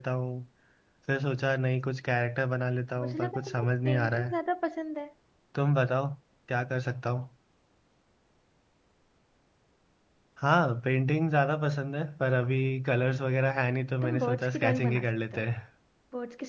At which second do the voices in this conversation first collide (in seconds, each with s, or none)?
3.0 s